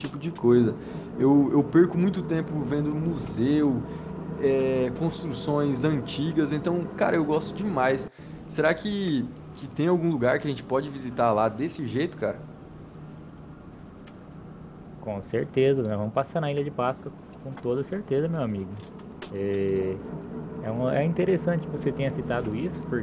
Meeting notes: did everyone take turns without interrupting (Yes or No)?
Yes